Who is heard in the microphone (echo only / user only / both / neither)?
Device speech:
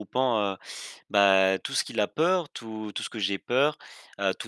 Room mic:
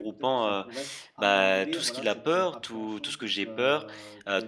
both